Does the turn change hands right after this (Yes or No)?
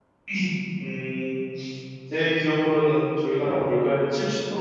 No